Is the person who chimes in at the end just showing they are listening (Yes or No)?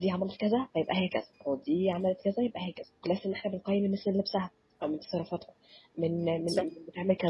Yes